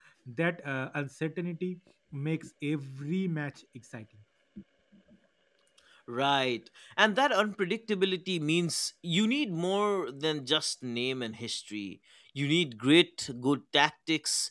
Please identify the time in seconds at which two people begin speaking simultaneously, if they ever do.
none

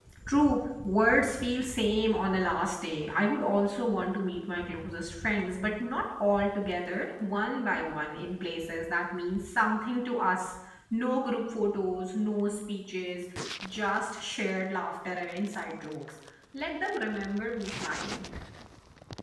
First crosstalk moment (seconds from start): none

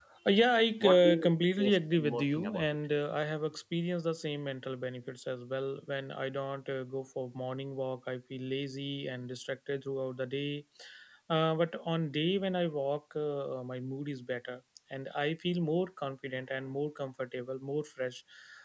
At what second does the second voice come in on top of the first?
1 s

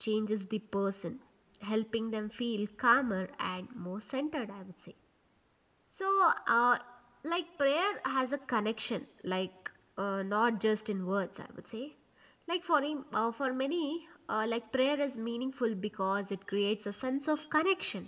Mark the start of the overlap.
none

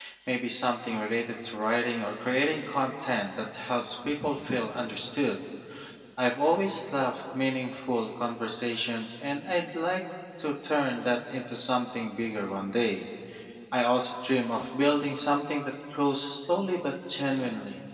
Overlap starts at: none

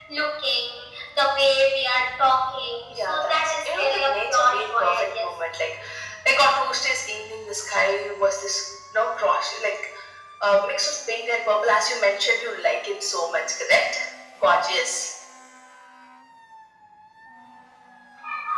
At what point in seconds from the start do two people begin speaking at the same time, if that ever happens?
3 s

